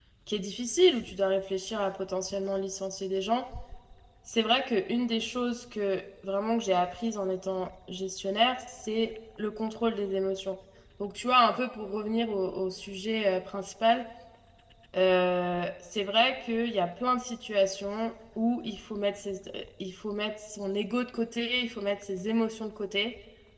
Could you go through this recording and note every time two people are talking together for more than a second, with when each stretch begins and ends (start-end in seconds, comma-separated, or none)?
none